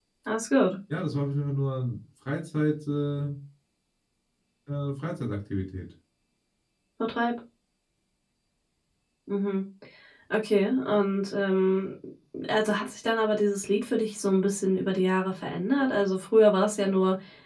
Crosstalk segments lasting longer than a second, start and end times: none

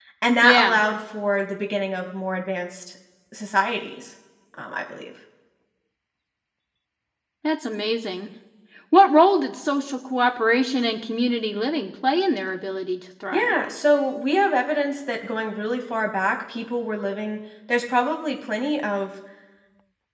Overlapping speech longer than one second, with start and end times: none

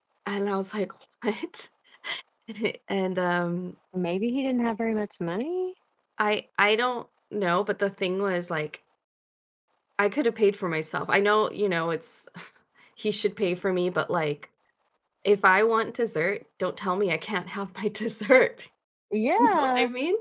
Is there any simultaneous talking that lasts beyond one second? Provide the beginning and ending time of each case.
none

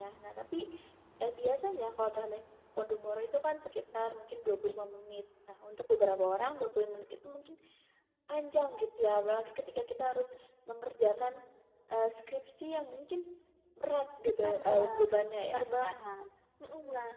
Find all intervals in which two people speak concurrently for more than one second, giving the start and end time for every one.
14.4-15.9

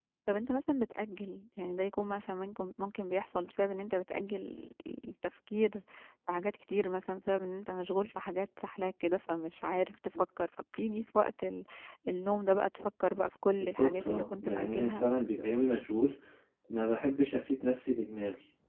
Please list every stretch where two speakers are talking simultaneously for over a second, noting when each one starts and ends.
13.6-15.0

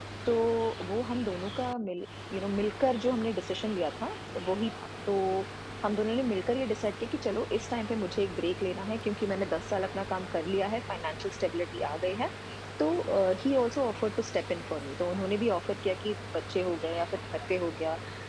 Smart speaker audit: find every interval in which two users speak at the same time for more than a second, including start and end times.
none

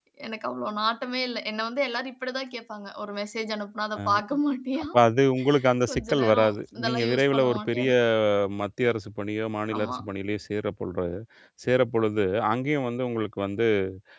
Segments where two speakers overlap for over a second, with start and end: 5.9-7.9

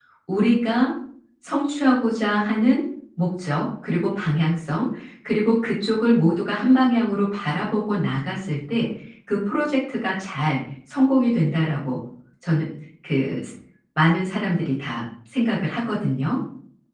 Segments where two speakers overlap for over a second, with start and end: none

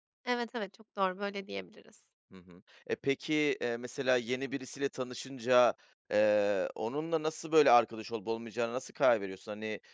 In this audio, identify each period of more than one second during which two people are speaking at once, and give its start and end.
none

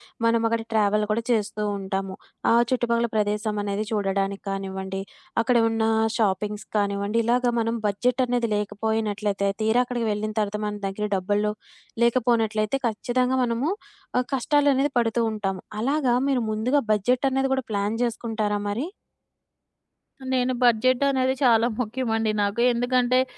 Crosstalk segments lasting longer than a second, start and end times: none

